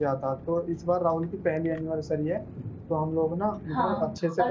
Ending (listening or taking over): taking over